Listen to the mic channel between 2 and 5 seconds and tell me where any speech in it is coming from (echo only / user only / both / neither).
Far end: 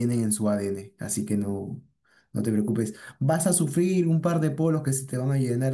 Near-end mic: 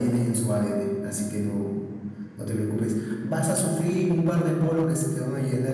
echo only